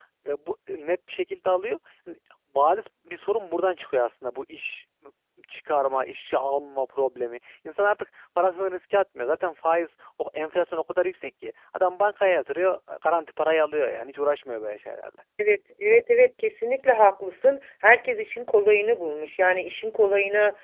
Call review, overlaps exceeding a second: none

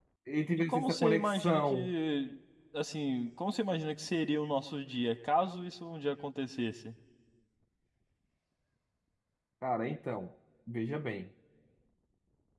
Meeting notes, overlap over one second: present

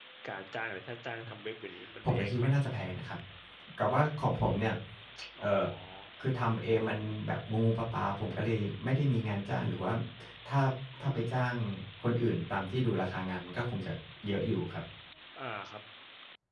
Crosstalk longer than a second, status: none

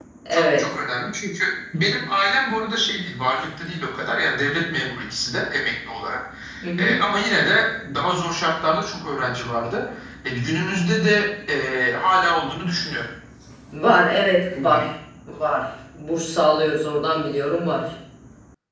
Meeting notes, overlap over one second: none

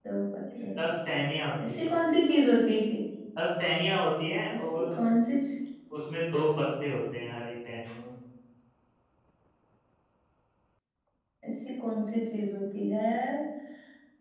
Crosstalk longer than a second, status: none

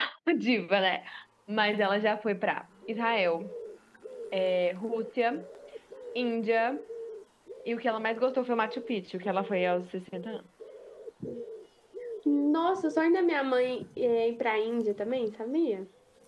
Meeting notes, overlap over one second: none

